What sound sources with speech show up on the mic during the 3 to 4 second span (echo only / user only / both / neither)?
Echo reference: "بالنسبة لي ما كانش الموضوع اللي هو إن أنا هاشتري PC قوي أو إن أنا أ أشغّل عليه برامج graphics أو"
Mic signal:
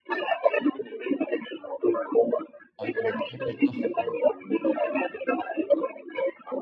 both